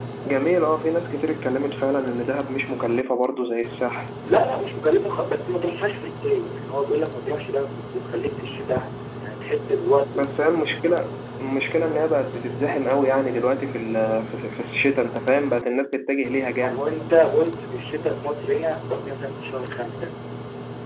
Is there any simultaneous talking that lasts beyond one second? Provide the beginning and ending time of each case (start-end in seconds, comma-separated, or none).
none